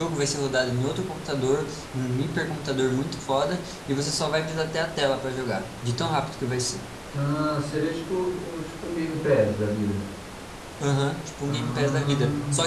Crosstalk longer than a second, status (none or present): present